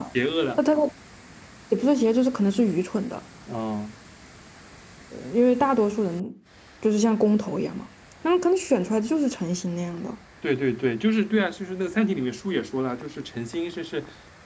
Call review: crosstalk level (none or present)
none